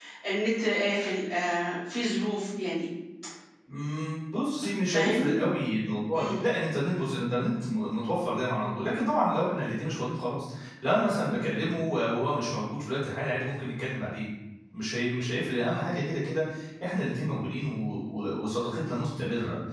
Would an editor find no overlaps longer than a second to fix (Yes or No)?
Yes